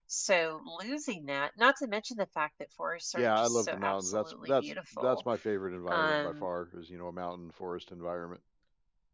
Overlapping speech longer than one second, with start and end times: 3.2-5.2

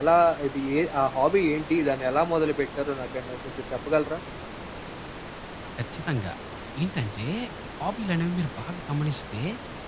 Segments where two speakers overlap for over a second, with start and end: none

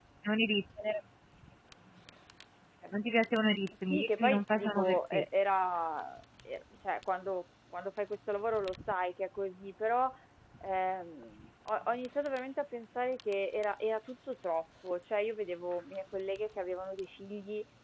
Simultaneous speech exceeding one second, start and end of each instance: 3.9-5.2

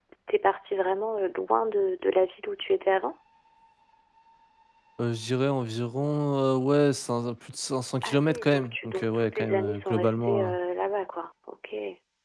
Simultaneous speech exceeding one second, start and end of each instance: 8.0-10.5

